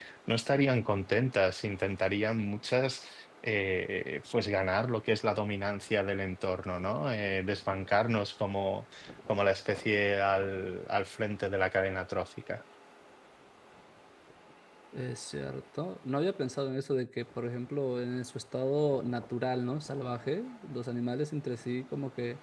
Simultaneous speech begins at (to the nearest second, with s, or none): none